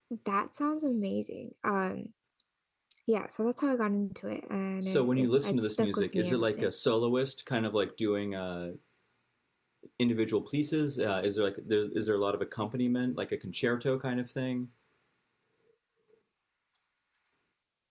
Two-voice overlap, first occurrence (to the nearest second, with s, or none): 5 s